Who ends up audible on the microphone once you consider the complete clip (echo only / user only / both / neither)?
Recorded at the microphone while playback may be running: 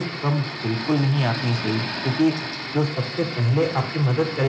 echo only